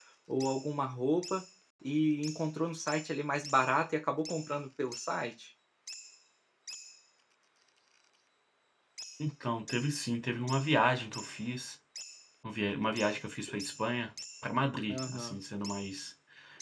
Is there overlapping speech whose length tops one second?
No

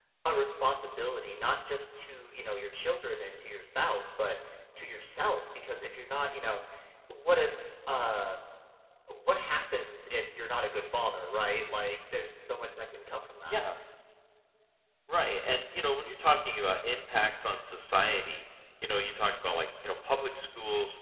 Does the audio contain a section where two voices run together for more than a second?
No

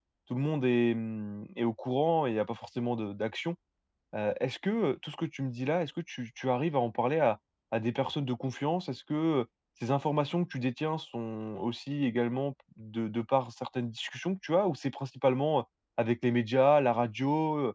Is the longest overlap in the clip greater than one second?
No

